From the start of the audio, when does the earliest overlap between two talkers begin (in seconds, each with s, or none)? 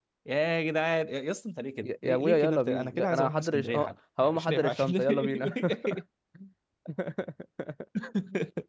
1.8 s